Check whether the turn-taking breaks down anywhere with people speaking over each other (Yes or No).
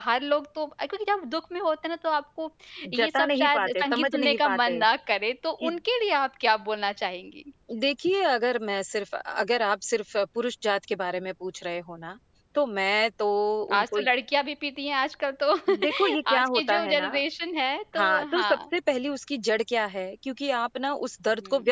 Yes